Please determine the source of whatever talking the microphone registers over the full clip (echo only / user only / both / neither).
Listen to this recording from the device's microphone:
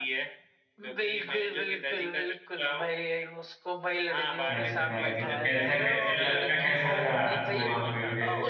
both